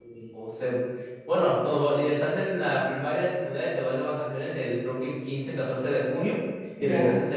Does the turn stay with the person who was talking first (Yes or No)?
Yes